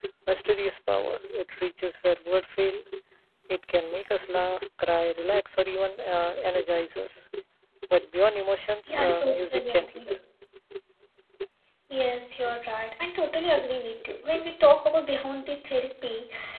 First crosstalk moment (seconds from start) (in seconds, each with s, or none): 8.9 s